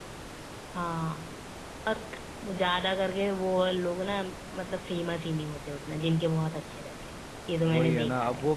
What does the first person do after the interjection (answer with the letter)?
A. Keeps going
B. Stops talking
B